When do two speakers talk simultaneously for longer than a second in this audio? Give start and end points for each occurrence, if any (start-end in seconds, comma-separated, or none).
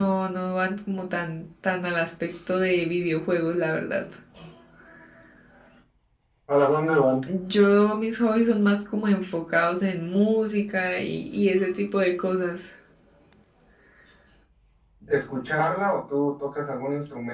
none